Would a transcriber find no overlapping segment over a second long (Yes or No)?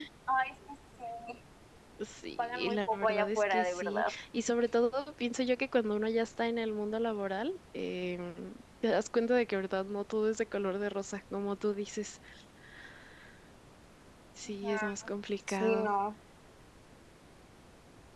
No